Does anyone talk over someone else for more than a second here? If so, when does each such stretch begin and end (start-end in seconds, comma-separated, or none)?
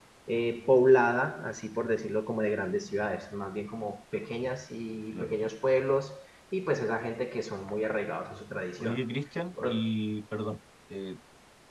none